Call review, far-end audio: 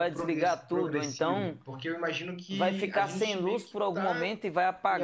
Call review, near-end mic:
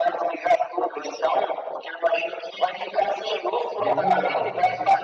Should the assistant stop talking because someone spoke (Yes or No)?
Yes